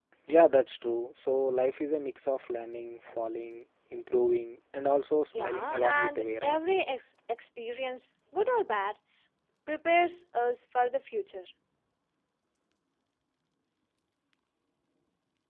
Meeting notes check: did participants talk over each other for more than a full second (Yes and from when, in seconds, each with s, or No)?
Yes, from 5.3 s